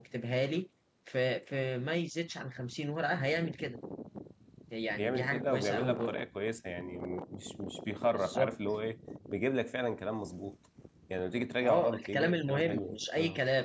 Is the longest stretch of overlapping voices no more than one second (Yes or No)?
No